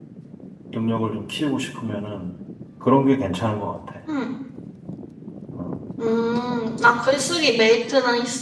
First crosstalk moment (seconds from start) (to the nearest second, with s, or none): none